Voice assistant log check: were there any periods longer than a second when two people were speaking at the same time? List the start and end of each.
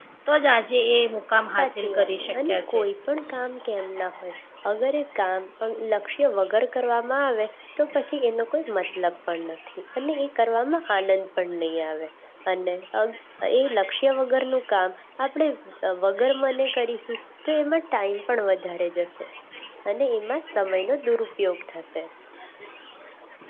1.5-2.8

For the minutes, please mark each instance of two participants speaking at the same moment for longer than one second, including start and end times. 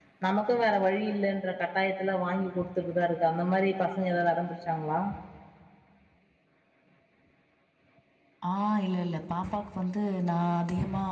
none

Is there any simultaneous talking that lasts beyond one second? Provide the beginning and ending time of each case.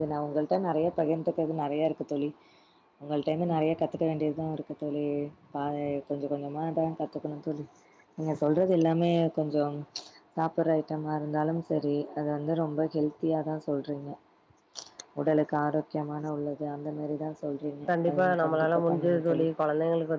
18.1-19.5

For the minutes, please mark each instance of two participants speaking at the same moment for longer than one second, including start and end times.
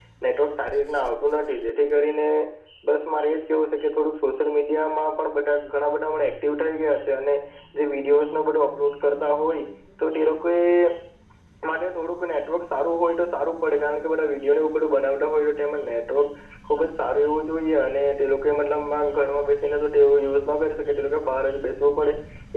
none

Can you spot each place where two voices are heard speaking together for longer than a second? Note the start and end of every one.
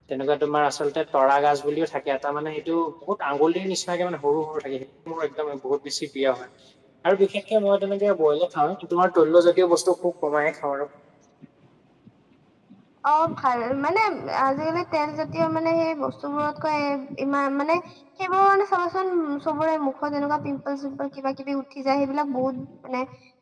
none

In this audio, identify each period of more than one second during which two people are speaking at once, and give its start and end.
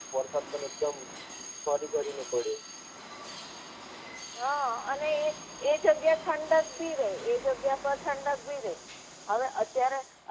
none

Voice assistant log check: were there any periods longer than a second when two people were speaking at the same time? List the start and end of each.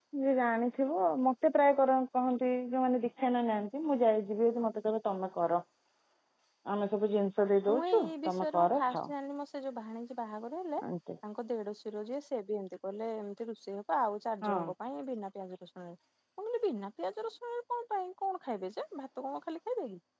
7.7-9.1

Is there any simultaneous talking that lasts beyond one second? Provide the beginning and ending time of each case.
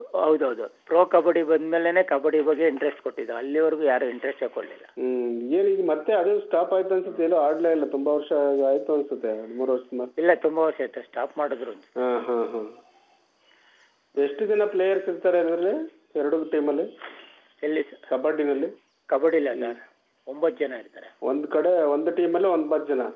none

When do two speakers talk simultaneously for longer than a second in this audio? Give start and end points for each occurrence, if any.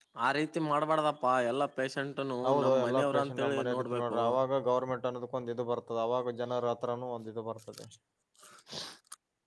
2.5-4.2

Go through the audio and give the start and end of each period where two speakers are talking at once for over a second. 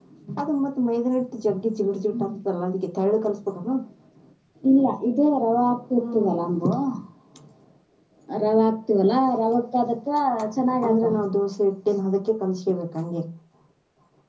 none

